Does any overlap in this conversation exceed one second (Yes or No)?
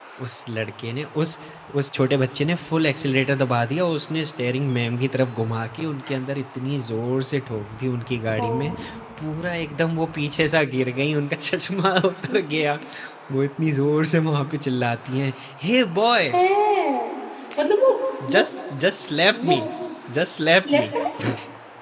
No